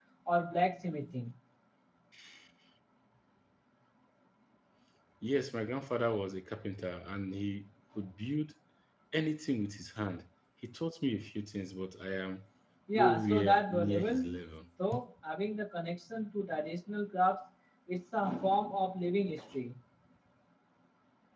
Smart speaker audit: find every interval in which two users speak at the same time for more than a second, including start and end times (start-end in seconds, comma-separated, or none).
12.9-14.4